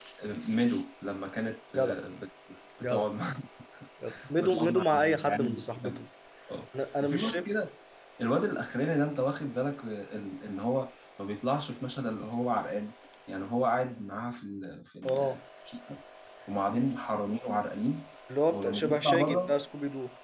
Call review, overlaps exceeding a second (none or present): present